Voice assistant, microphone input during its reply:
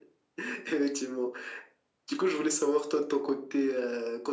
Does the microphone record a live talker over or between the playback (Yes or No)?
No